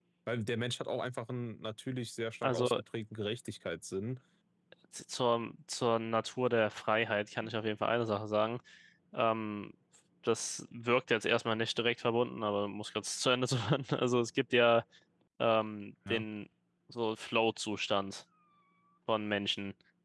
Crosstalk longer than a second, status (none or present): none